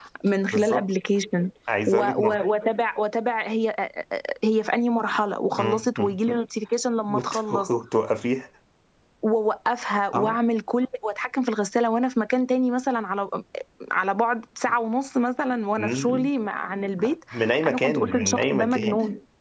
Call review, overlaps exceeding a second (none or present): present